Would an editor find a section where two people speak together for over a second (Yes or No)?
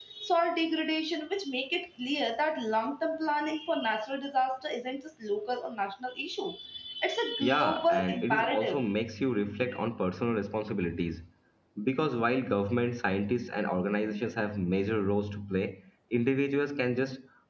Yes